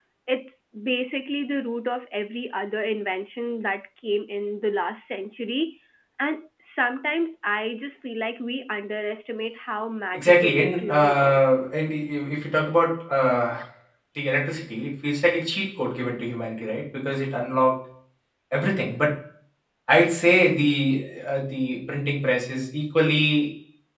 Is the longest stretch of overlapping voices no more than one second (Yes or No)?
No